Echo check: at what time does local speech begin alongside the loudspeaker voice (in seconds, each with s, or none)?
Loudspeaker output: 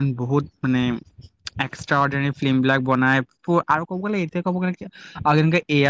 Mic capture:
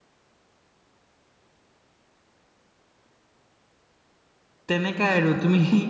4.7 s